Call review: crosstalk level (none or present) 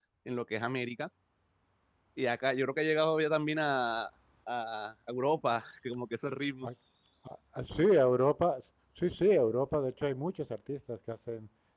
none